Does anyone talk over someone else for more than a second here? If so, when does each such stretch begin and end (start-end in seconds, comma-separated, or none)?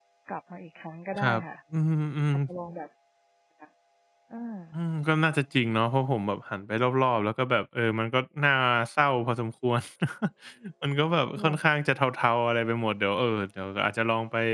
none